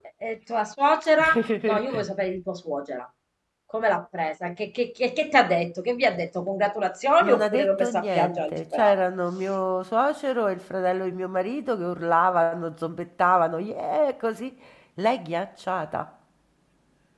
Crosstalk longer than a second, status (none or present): present